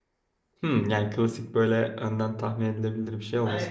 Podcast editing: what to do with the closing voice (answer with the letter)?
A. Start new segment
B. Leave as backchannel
A